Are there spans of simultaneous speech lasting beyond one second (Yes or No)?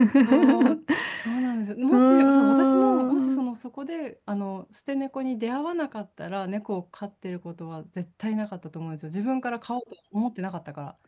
Yes